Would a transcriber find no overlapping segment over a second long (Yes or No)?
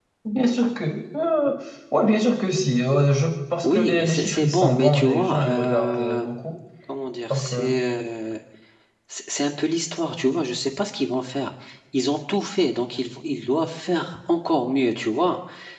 No